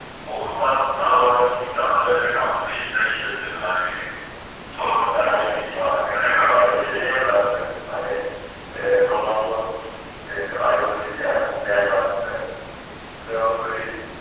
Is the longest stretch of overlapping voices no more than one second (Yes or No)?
No